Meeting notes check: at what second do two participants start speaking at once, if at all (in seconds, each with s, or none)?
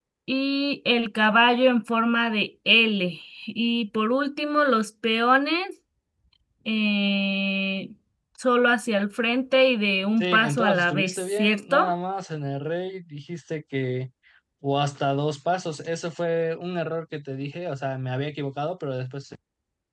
10.2 s